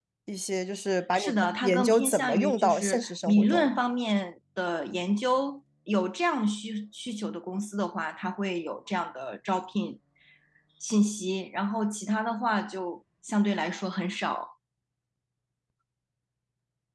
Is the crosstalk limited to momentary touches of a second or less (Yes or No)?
No